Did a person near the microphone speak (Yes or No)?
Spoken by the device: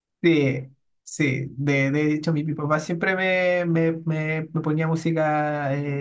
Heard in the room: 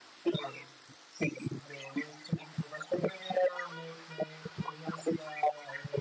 No